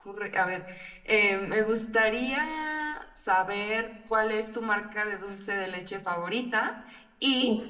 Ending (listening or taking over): listening